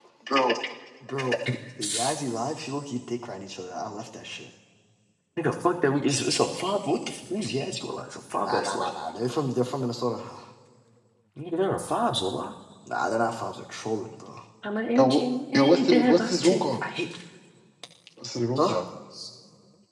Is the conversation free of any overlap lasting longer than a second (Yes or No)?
No